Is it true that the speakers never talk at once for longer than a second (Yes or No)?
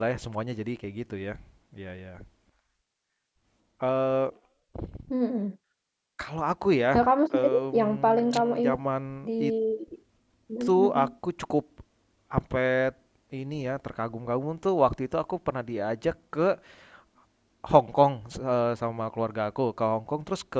No